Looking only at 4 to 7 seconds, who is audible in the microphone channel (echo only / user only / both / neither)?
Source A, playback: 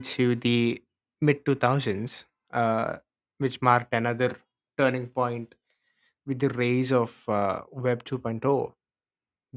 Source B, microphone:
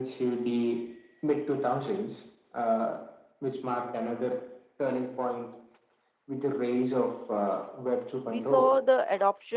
echo only